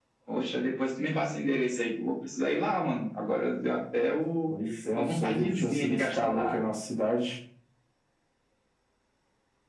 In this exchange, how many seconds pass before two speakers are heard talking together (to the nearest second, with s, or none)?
5 s